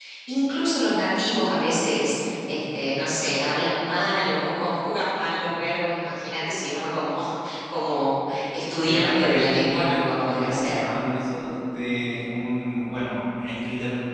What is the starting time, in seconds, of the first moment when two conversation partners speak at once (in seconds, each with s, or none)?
8.8 s